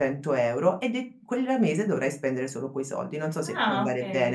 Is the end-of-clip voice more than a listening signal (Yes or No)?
Yes